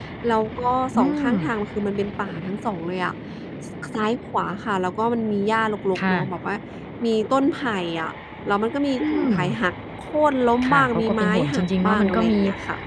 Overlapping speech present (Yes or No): Yes